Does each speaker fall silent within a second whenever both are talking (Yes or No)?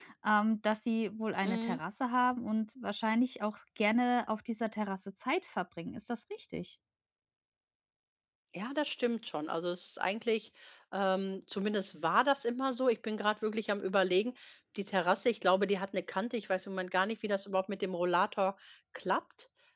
Yes